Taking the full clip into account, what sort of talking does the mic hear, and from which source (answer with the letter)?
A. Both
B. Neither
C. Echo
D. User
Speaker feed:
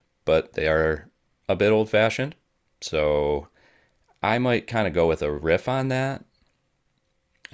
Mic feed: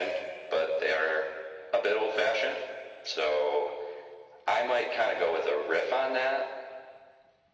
C